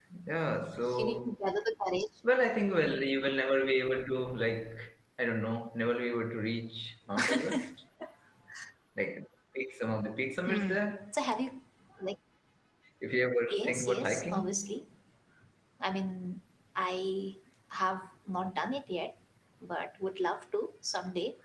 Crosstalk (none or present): present